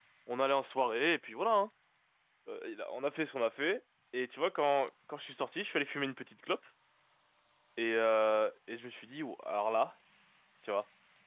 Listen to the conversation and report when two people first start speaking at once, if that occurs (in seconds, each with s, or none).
none